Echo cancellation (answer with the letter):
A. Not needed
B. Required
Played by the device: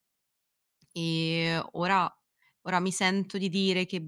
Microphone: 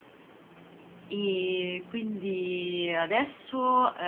A